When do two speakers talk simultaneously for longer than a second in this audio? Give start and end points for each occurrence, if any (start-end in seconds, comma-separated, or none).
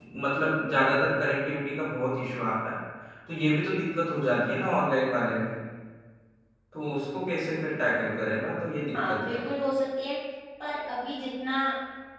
none